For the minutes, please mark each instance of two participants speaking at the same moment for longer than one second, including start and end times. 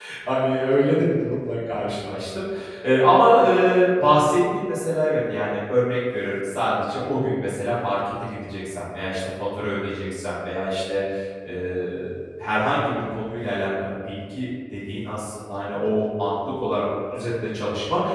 none

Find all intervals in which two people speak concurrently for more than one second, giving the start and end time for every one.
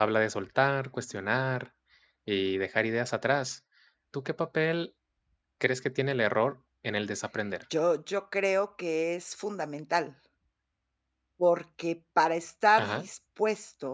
none

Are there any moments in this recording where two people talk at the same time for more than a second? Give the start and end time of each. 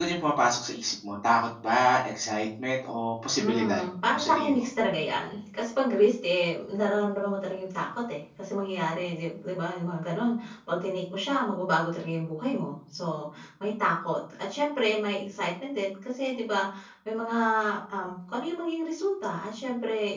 3.4-4.6

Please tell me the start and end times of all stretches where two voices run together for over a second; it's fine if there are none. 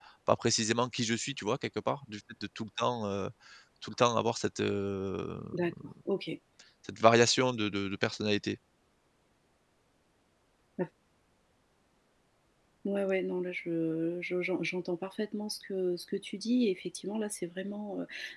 none

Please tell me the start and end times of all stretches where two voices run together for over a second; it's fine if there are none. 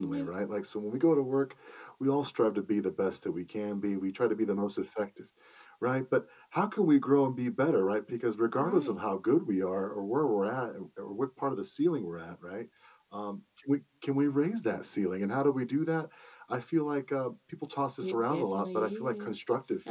18.0-19.3

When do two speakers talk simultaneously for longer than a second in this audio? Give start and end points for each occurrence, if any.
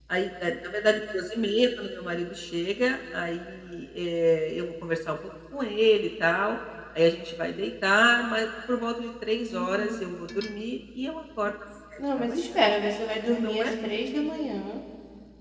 none

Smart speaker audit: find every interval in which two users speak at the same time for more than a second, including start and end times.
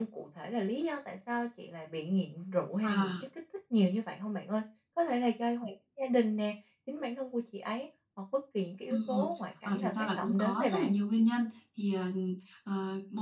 9.7-10.9

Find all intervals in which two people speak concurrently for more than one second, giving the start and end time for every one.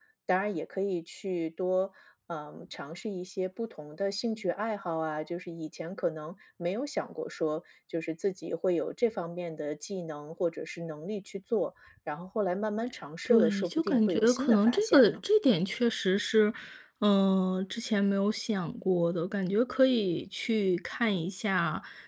13.2-15.2

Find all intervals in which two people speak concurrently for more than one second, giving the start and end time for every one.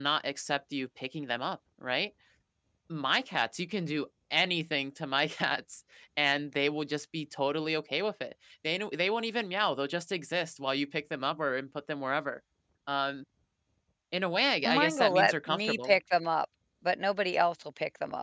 14.7-16.0

